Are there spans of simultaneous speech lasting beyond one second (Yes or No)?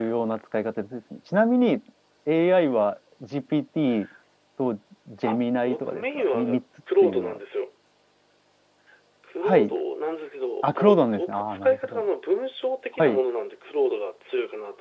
Yes